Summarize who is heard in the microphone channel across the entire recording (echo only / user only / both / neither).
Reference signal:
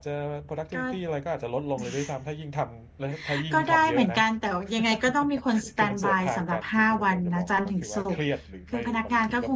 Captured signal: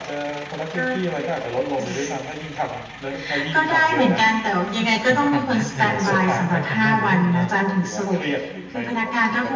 both